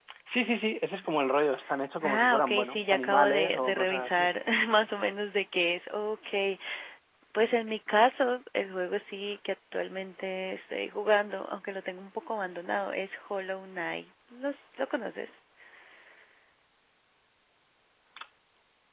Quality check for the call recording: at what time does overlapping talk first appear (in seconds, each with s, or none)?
2.0 s